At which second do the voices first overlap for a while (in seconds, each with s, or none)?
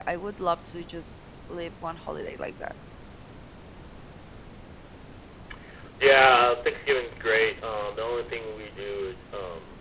none